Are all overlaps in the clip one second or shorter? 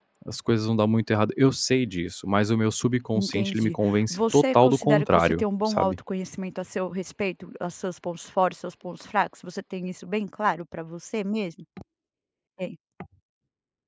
No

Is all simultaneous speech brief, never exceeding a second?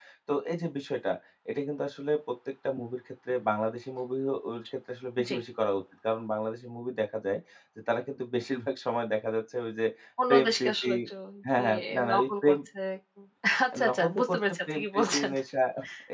No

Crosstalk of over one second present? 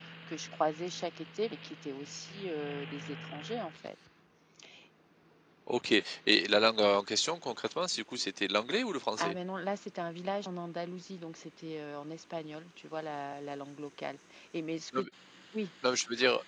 No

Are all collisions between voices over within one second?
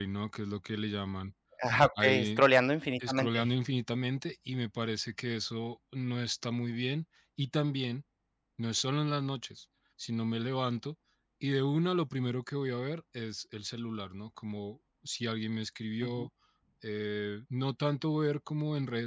Yes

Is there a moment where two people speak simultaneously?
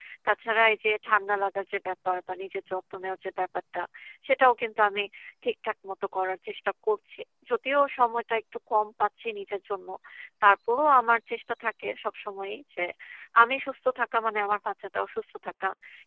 No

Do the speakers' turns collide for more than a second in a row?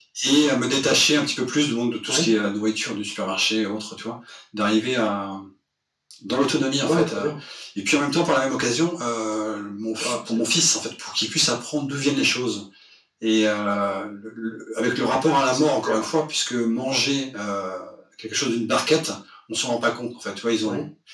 No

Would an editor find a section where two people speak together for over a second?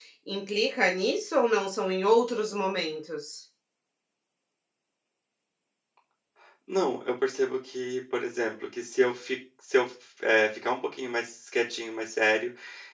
No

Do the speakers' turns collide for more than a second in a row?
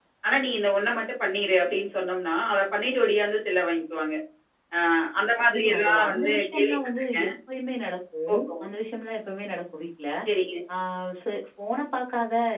Yes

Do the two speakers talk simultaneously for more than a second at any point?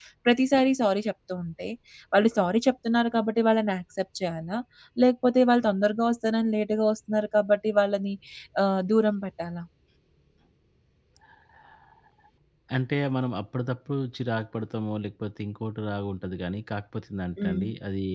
No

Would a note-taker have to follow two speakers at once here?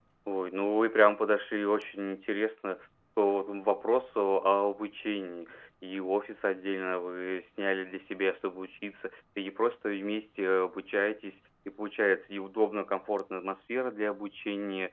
No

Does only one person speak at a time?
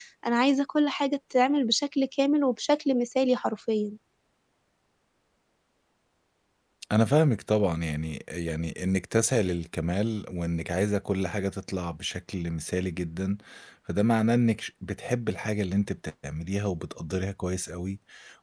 Yes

